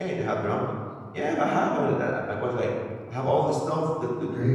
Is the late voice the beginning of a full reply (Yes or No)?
No